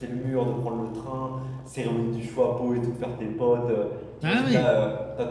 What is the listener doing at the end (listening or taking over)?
listening